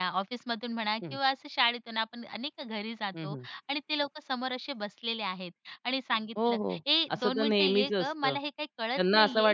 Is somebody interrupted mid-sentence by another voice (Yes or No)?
Yes